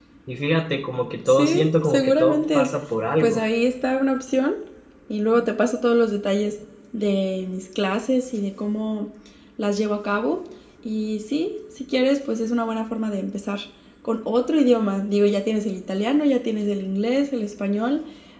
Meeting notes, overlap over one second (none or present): present